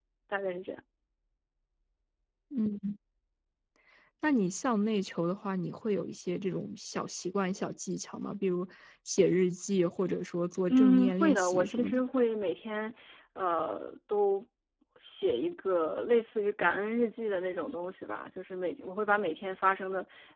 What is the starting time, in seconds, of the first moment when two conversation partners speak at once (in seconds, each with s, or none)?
10.7 s